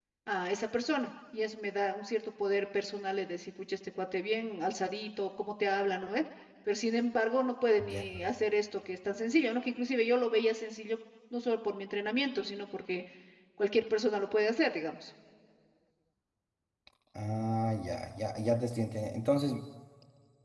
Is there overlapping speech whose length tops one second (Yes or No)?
No